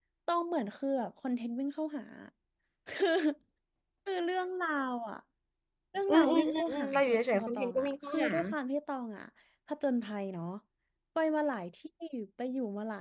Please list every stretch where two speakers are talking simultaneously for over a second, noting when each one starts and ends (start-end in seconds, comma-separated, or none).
6.1-8.3